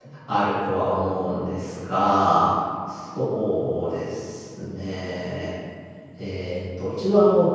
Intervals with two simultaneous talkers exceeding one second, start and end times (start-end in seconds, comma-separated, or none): none